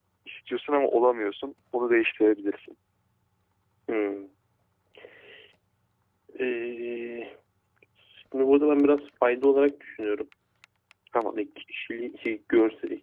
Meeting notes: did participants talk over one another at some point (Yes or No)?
No